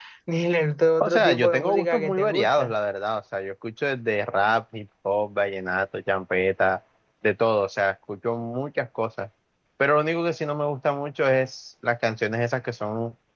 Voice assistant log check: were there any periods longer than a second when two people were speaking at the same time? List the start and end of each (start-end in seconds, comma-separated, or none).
1.0-2.7